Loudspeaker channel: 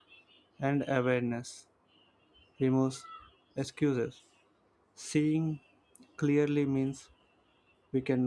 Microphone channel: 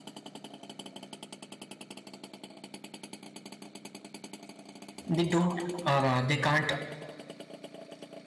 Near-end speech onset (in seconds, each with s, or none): 5.1 s